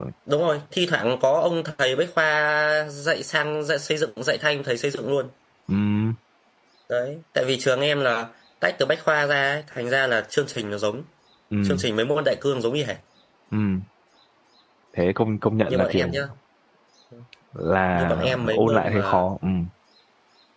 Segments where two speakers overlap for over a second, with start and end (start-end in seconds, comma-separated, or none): 17.9-19.3